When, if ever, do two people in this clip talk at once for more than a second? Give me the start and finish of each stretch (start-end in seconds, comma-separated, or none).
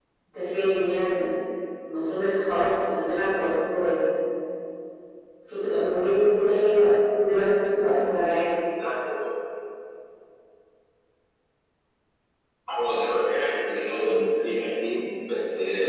none